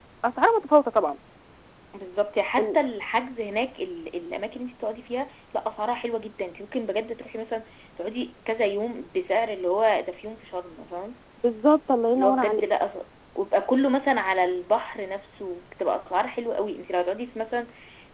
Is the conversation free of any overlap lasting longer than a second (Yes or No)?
Yes